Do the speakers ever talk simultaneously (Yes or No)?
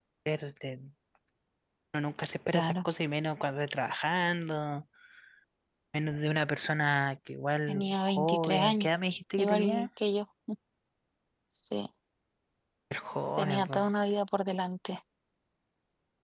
Yes